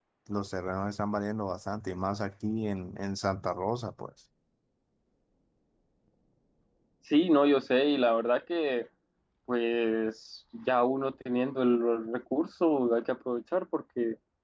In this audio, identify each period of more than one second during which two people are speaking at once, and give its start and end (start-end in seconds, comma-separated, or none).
none